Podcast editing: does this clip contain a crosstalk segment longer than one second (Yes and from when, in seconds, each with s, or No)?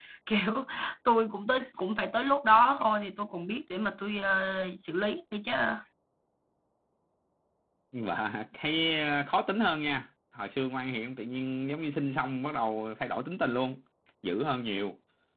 No